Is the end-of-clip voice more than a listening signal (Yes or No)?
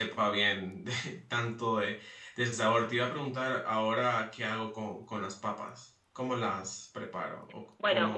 Yes